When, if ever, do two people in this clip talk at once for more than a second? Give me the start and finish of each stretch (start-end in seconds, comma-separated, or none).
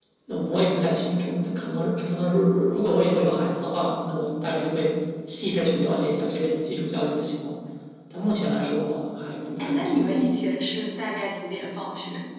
none